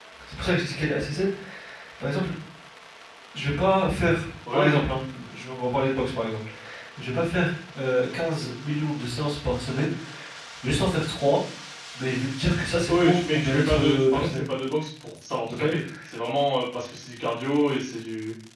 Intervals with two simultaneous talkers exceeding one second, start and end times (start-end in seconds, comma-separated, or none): 12.9-14.4